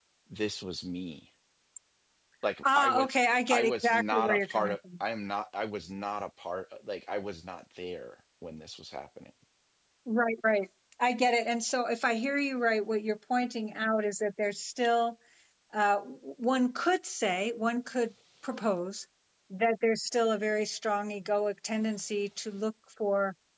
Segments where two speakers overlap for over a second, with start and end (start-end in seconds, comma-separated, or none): 3.5-4.8